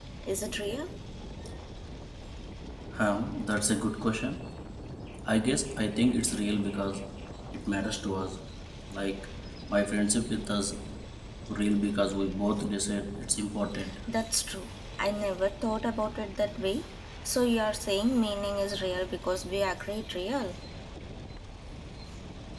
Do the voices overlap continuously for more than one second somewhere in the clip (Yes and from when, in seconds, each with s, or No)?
No